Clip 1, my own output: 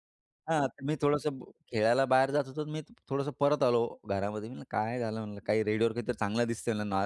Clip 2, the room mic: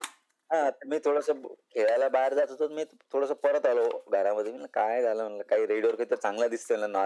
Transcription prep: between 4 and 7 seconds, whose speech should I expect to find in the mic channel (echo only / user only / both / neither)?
echo only